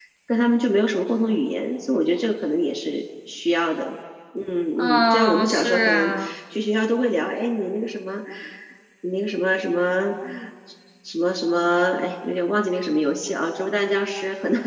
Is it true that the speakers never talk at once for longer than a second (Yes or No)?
No